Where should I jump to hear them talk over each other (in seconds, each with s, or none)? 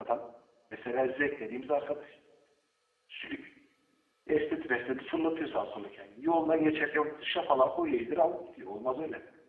none